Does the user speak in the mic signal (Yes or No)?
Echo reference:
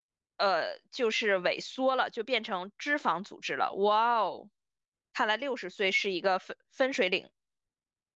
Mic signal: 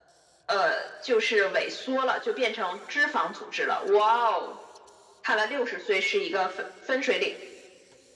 No